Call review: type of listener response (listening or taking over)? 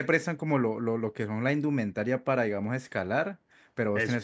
listening